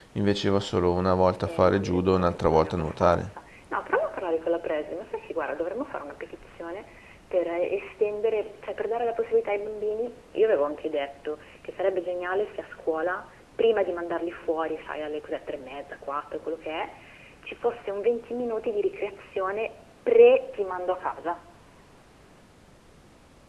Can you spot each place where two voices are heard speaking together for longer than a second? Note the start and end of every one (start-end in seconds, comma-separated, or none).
1.5-3.3